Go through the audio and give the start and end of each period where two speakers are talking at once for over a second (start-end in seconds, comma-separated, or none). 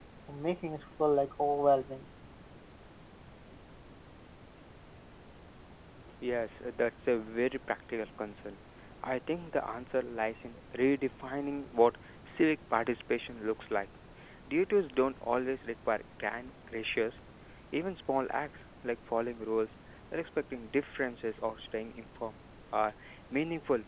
none